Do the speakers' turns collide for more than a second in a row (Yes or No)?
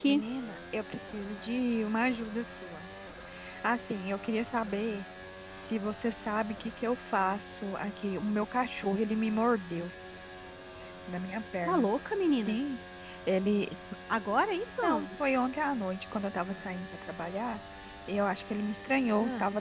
No